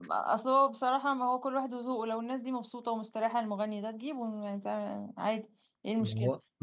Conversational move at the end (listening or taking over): taking over